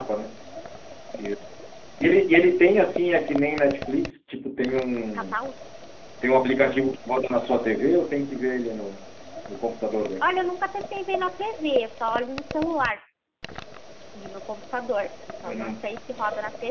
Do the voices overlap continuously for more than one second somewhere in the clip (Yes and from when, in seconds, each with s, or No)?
No